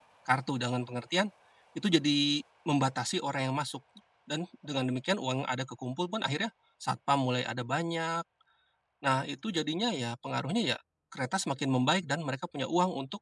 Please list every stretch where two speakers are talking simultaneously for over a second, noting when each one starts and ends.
none

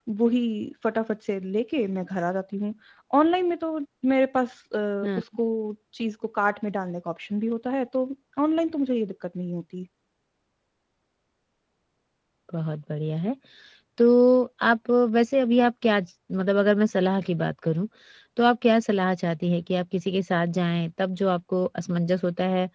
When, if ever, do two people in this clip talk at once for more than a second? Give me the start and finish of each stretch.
none

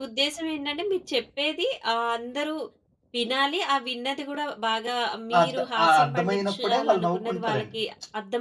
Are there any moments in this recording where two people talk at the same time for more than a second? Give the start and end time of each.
5.4-7.8

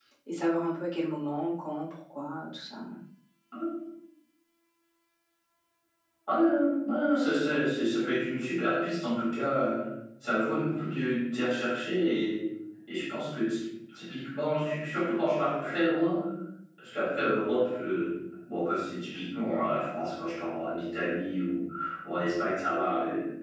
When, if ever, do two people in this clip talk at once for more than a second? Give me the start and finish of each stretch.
none

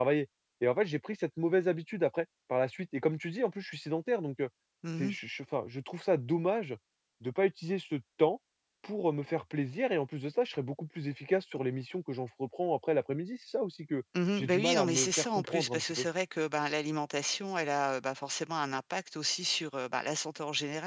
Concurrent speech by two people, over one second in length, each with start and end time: 14.4-16.0

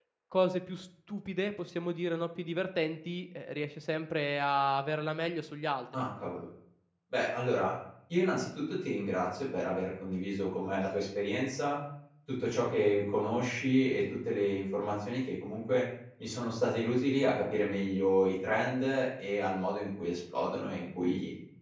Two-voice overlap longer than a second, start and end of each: none

